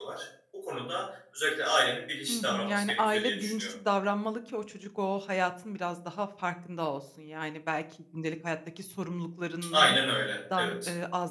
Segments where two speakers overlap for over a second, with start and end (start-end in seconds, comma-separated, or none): 2.3-3.7